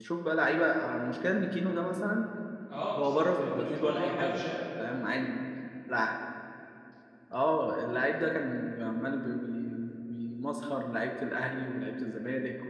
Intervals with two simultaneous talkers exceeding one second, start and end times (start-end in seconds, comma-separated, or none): 3.0-4.4